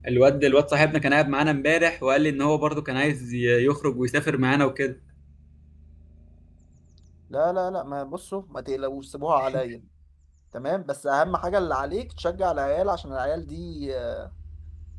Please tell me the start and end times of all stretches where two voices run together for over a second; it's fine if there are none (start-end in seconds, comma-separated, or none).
none